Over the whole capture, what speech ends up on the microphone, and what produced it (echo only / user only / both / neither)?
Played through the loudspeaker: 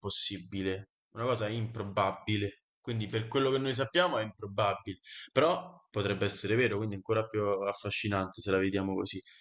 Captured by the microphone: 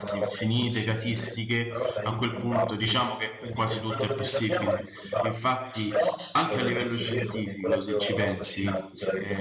both